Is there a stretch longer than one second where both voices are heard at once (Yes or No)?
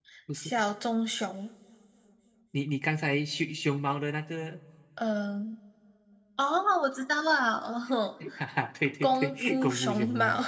Yes